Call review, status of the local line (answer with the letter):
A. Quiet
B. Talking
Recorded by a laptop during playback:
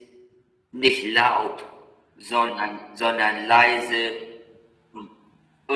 A